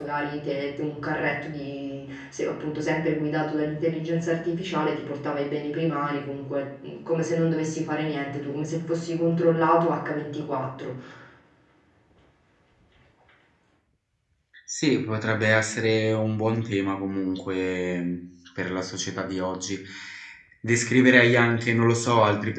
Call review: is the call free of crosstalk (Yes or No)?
Yes